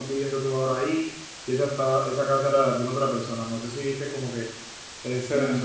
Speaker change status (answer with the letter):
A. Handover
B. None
A